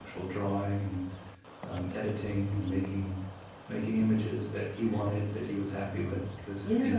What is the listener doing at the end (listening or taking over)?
taking over